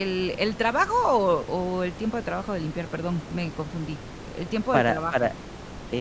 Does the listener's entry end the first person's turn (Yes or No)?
Yes